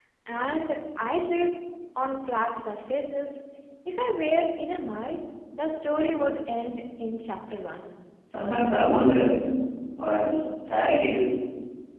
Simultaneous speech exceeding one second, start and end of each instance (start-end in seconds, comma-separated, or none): none